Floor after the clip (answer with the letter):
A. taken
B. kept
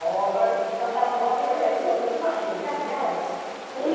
A